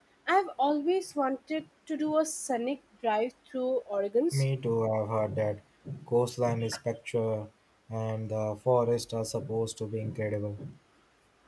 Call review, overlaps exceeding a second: none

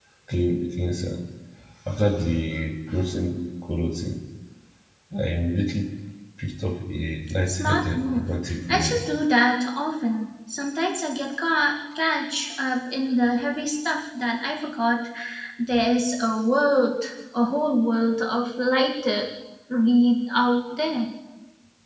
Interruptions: present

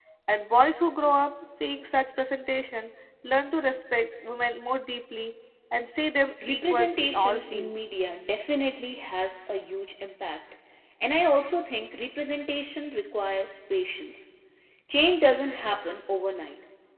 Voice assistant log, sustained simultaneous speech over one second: present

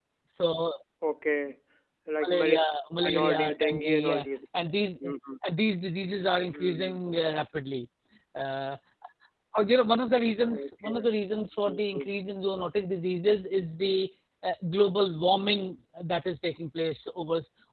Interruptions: present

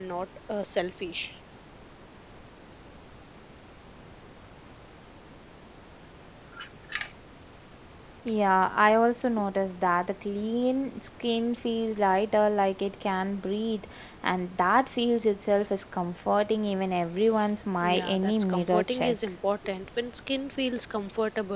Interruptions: present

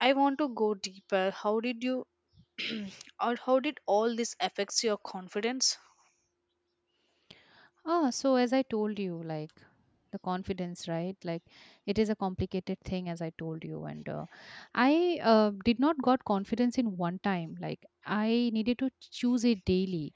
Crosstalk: none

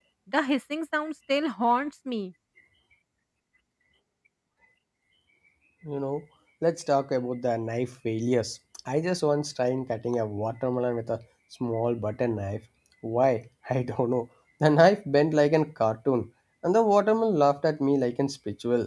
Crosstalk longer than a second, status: none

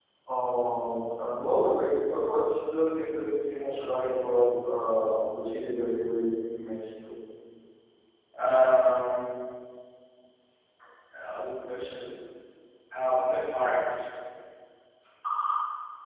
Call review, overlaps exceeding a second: none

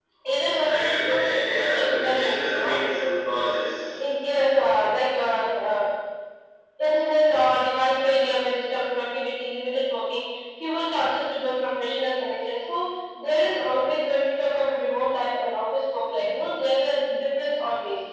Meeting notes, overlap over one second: present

